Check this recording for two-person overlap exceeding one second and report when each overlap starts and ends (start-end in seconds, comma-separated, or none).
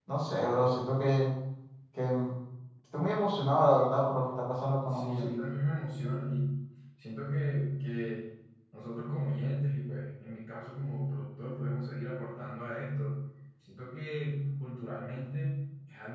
none